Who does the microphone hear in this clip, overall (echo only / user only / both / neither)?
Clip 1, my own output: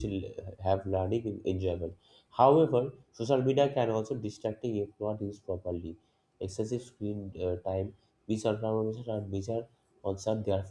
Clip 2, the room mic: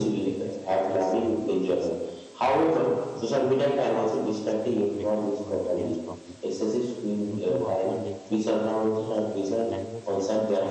both